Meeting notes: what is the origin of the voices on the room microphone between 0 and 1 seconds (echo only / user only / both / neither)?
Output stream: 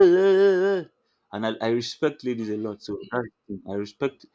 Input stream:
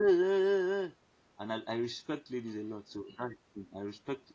echo only